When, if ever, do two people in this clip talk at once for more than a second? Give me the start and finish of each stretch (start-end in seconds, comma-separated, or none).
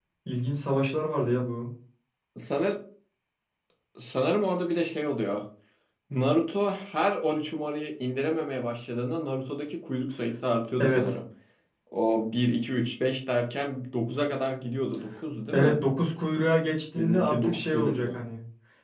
17.0-18.2